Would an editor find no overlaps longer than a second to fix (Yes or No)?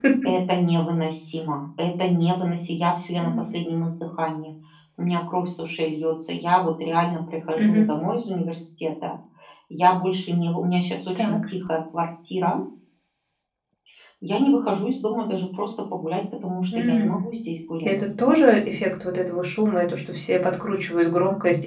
Yes